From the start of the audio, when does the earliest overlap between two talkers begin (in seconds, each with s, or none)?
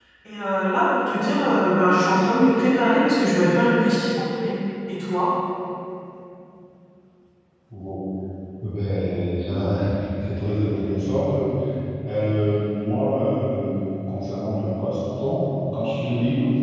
none